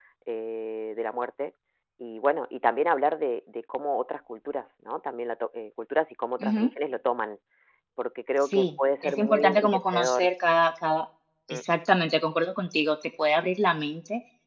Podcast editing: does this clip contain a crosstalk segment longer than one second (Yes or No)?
Yes